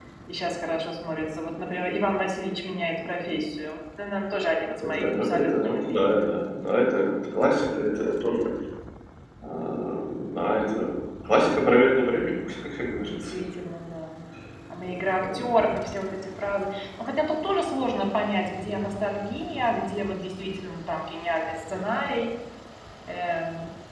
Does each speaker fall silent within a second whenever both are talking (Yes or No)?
No